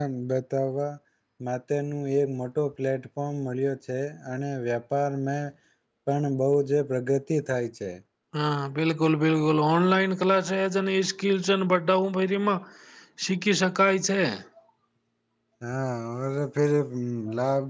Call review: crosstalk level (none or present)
none